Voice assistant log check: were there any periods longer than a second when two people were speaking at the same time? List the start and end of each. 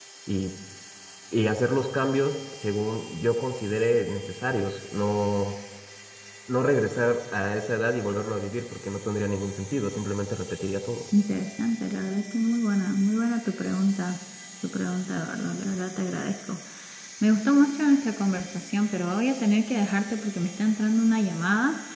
none

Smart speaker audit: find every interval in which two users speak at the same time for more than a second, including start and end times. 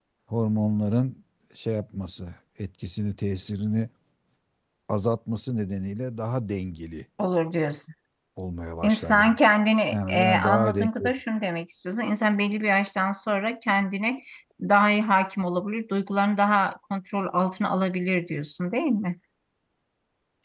9.9-11.1

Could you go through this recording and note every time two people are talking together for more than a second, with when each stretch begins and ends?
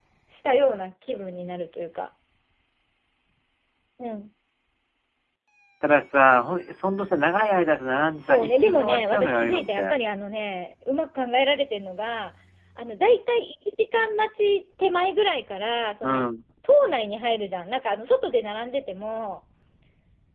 8.1-10.0

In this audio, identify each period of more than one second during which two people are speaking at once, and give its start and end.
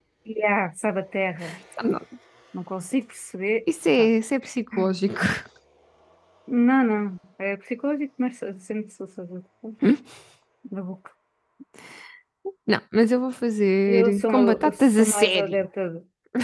13.9-15.6

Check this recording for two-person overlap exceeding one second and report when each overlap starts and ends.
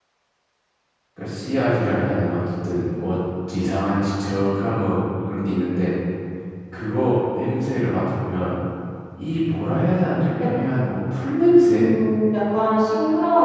none

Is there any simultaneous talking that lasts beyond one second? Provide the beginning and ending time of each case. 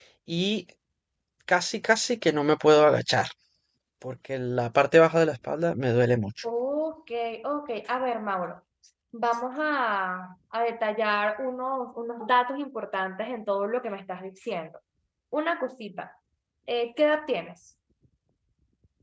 none

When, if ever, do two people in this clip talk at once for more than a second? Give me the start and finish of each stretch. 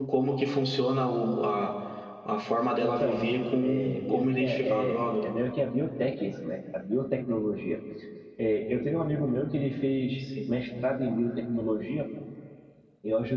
3.6-5.0

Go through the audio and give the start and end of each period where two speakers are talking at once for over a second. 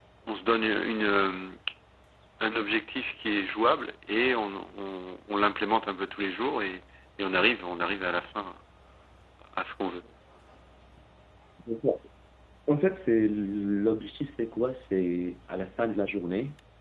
none

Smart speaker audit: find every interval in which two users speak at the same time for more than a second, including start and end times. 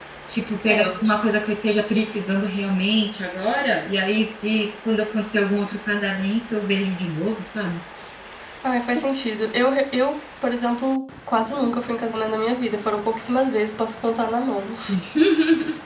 none

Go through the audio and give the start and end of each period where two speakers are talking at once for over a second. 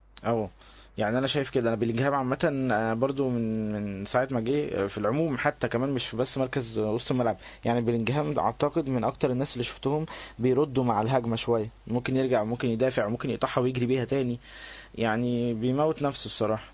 none

